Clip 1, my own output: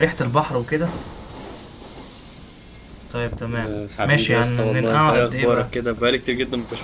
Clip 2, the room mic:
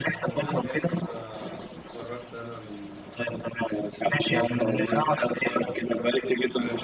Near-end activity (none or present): present